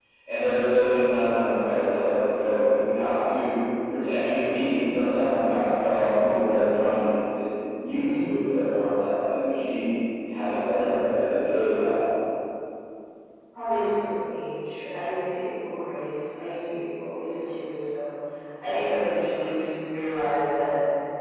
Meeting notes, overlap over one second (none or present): none